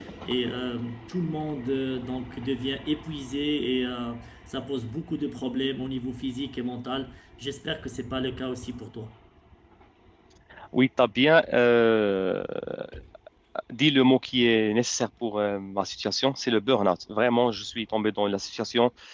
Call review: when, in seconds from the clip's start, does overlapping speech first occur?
none

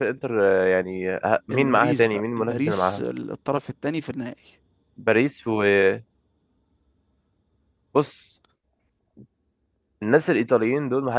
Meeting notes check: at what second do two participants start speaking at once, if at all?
2 s

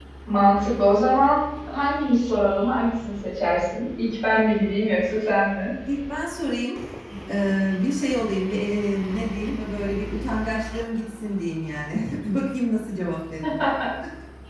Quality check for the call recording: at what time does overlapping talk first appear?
none

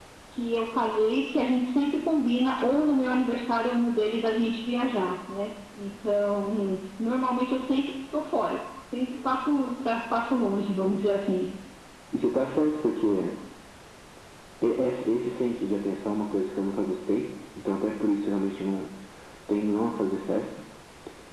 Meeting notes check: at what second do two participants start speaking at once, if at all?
none

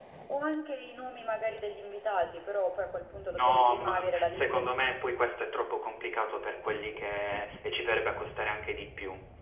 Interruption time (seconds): 3 s

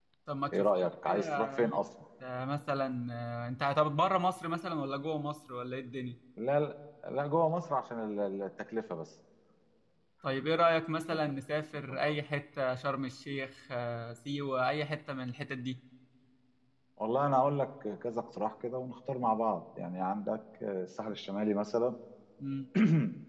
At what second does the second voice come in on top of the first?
1 s

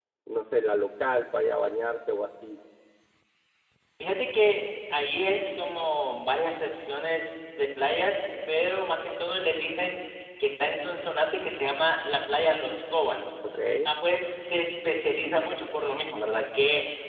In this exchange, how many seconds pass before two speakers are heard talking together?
none

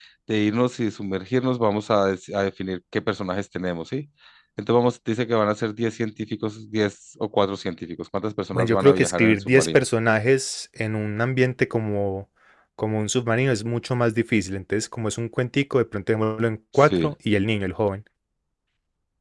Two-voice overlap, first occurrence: 9 s

